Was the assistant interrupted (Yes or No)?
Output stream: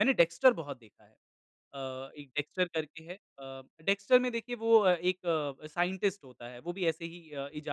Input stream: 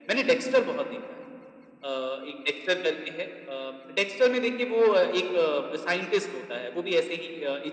No